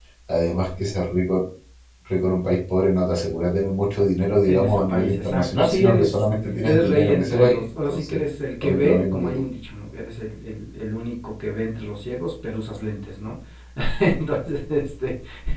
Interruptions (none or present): present